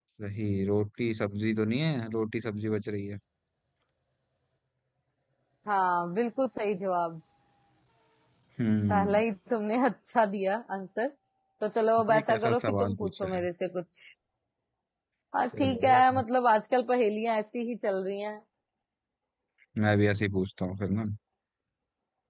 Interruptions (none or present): present